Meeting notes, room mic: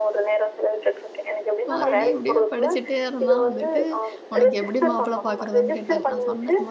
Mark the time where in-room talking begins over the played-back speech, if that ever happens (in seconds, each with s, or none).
1.7 s